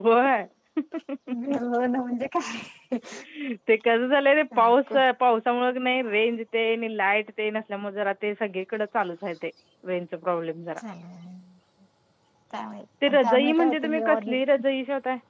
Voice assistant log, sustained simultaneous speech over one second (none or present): present